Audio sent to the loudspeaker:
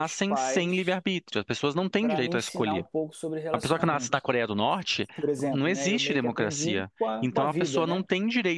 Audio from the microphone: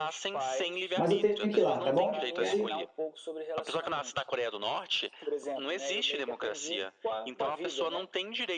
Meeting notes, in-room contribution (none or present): present